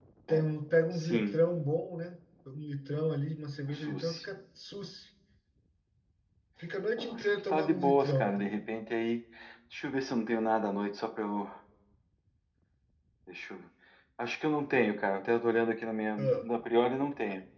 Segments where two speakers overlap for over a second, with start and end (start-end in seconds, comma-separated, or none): 7.0-8.4